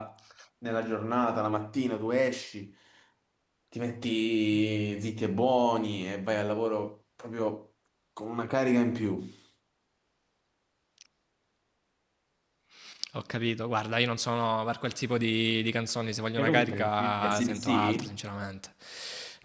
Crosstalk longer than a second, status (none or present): present